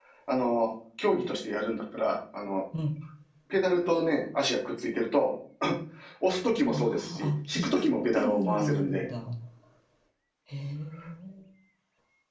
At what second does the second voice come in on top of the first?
7 s

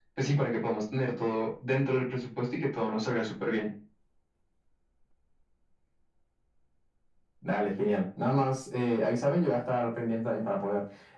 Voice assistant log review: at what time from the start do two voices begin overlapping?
none

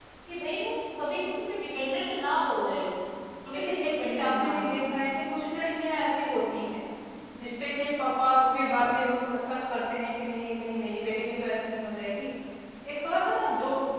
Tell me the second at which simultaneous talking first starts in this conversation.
4 s

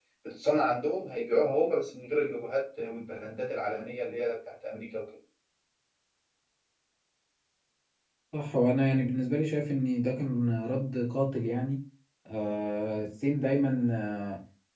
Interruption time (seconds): none

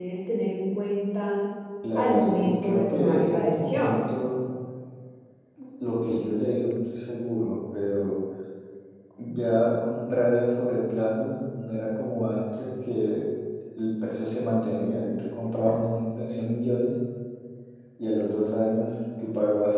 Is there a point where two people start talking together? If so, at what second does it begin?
2 s

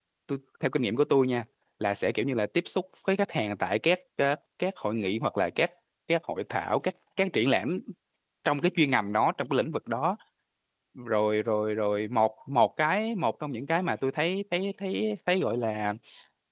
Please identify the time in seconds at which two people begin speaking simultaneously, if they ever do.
none

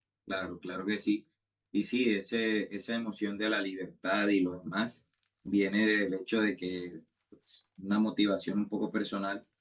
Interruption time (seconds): none

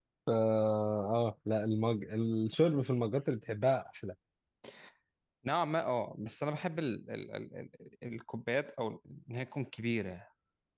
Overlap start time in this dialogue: none

